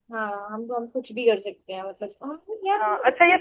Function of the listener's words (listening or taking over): taking over